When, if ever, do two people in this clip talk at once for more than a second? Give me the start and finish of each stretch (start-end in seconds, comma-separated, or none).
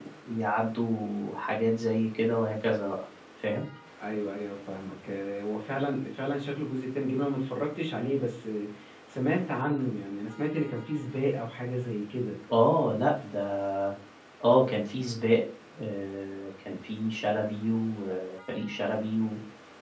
none